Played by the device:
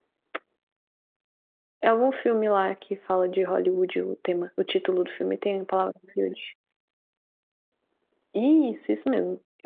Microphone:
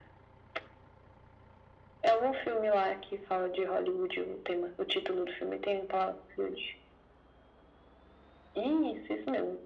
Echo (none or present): present